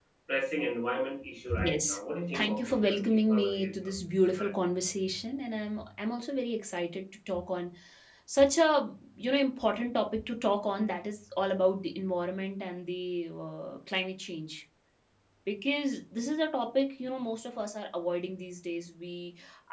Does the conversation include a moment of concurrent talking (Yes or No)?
Yes